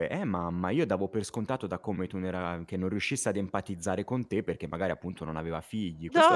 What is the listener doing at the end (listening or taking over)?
taking over